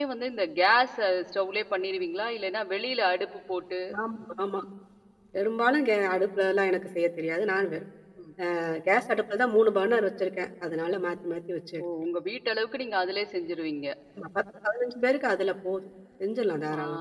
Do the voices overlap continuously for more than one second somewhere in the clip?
No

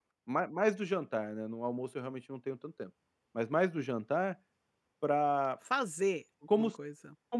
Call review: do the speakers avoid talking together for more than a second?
Yes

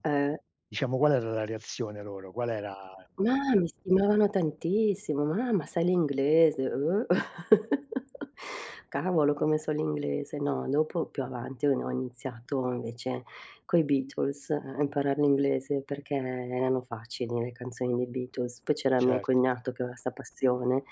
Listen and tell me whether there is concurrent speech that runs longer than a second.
No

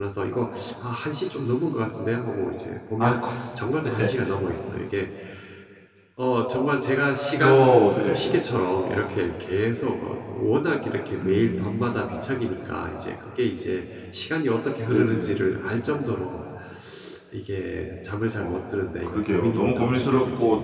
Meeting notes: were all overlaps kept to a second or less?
No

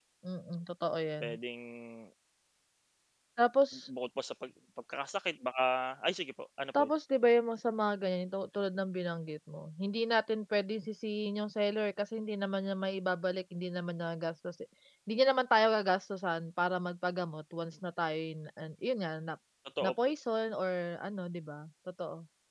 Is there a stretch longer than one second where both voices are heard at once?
No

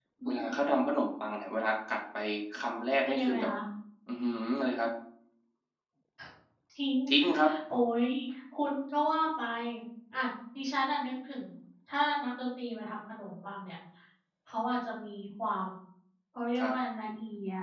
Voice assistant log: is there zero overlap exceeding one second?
Yes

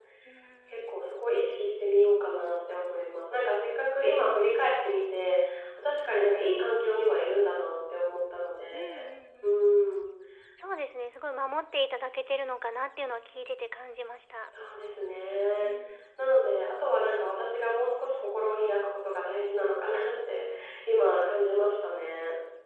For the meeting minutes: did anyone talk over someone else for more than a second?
No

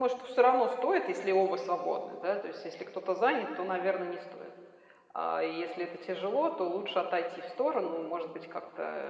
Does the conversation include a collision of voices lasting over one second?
No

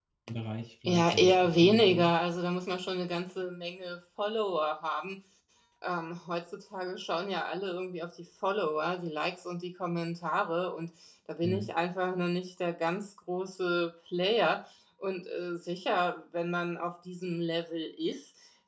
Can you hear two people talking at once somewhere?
Yes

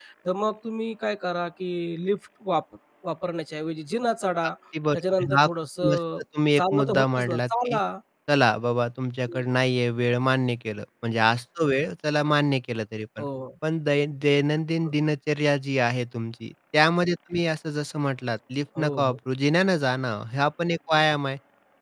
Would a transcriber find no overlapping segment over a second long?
No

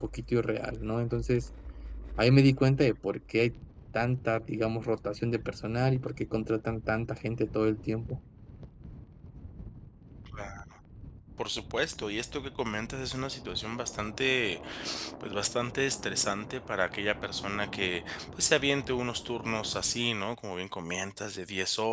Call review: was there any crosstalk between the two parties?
No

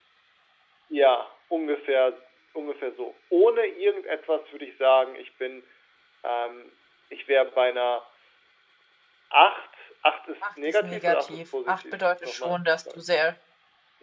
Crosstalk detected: Yes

